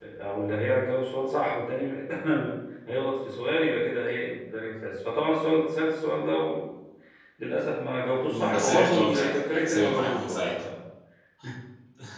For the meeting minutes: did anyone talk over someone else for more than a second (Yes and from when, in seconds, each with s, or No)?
Yes, from 8.3 s